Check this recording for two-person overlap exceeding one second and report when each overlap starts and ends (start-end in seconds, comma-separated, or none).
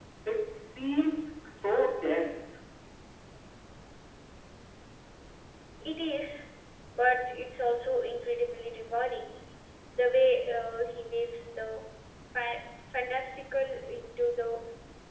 none